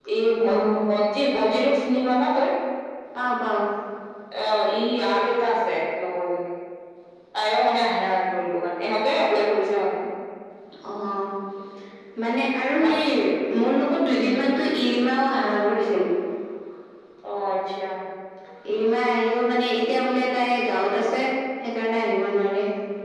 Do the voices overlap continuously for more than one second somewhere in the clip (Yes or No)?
No